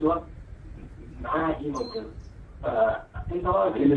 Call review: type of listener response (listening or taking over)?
taking over